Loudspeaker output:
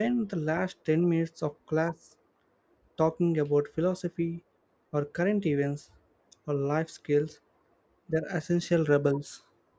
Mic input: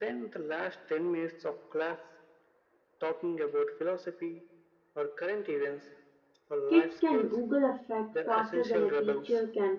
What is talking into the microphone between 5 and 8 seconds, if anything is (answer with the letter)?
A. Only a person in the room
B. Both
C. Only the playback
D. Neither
B